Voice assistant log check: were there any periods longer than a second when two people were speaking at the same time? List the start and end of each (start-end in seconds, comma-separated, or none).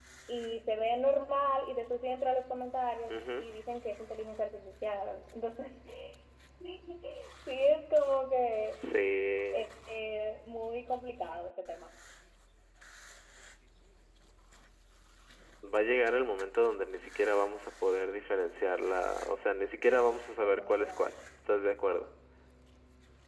19.9-21.1